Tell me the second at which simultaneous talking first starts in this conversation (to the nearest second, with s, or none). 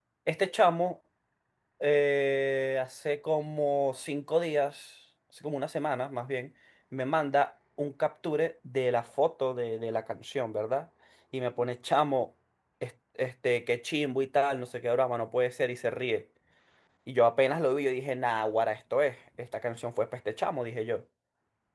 none